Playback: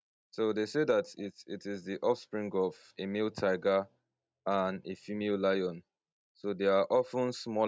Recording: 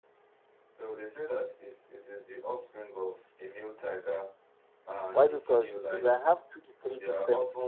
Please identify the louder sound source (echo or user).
user